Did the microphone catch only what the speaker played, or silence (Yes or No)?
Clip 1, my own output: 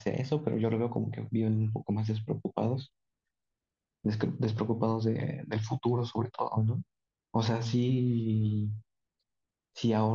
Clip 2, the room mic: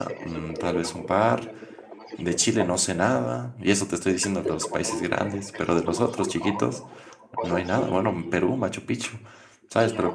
No